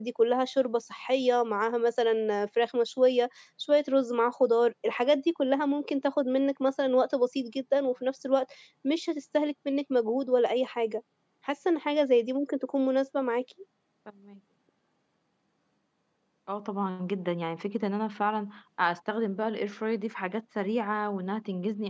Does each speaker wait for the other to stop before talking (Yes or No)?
Yes